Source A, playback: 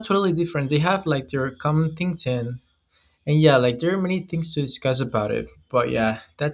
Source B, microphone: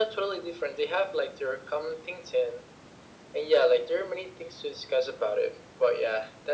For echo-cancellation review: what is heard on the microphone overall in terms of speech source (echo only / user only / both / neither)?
echo only